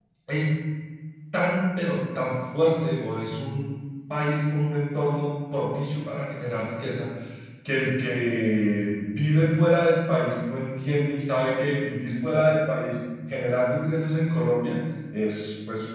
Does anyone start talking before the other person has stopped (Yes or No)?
No